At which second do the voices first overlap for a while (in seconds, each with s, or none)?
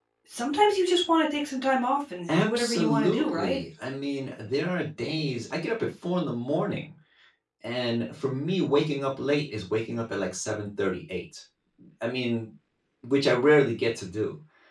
2.3 s